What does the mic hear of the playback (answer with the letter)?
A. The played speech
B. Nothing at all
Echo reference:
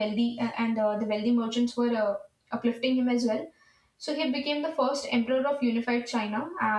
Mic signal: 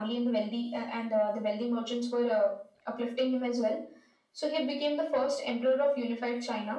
A